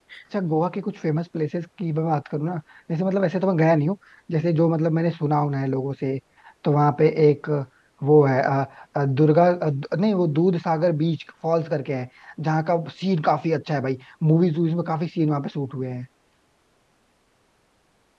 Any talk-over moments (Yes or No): No